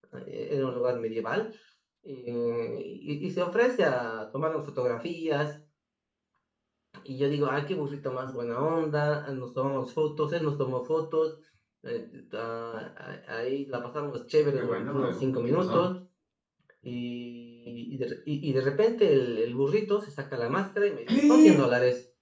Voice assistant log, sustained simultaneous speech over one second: present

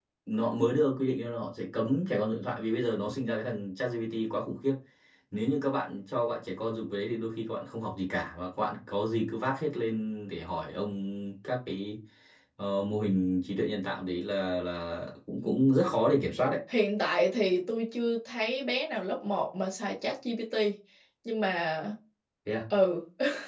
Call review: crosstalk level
none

